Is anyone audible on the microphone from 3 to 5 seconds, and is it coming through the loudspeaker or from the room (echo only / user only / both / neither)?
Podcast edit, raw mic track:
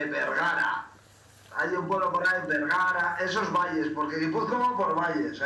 echo only